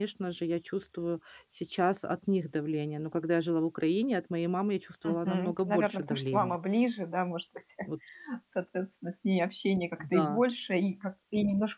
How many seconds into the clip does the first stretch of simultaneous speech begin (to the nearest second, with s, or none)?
5 s